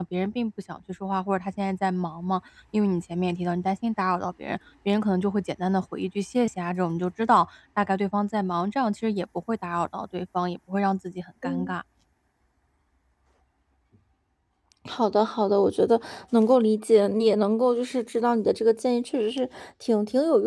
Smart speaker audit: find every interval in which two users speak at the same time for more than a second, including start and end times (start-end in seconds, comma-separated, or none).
none